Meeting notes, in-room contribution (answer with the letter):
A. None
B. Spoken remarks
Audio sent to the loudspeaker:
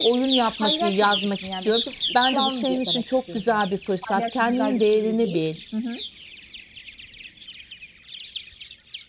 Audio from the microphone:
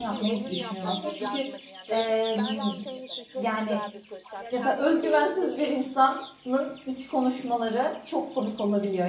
B